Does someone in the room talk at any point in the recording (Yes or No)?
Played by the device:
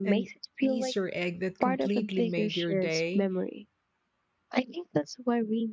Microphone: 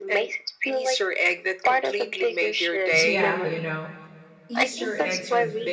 Yes